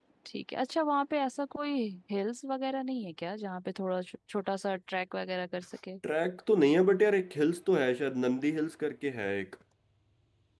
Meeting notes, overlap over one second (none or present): none